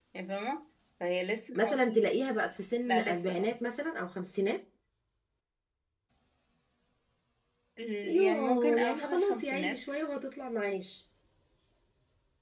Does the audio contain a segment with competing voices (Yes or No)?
Yes